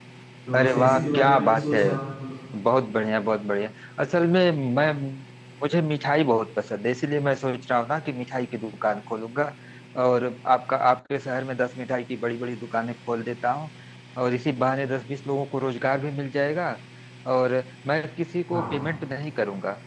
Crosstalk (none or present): present